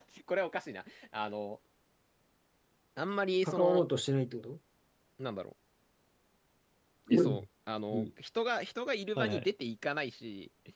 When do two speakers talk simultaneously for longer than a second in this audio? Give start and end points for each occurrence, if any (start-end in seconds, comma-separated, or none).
none